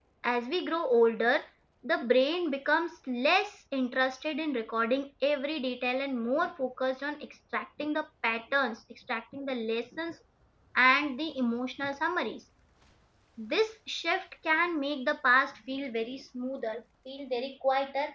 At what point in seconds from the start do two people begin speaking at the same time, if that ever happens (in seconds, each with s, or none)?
none